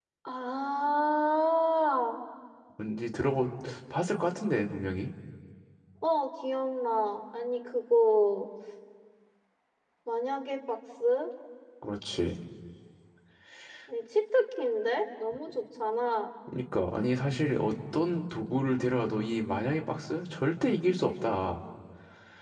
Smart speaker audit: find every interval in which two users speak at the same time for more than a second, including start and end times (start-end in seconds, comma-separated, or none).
none